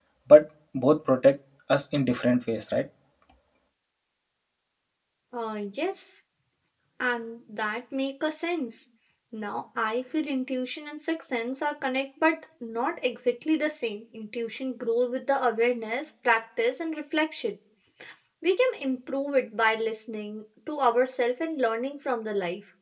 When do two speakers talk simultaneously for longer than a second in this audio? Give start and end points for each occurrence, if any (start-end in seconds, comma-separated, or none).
none